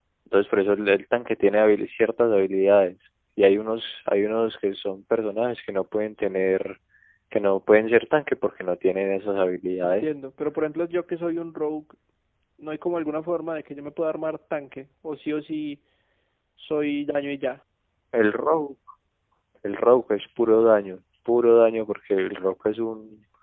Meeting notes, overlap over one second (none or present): none